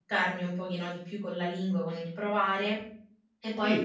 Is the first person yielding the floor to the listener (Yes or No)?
No